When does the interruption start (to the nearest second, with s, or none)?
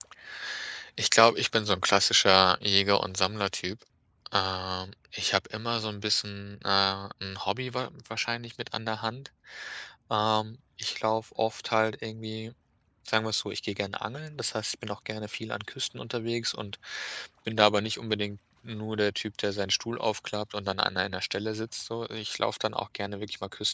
none